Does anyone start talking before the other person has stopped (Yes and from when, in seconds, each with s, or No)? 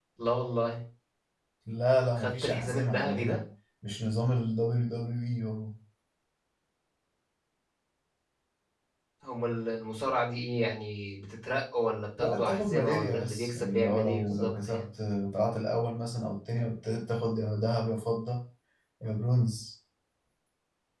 Yes, from 2.2 s